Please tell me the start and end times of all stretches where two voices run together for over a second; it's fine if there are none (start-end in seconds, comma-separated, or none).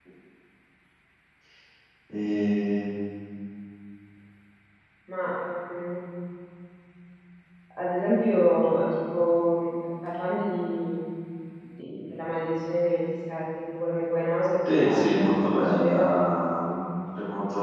14.7-16.1